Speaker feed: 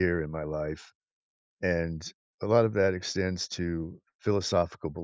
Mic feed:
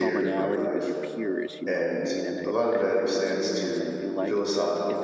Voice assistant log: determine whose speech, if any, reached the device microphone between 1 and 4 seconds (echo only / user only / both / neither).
both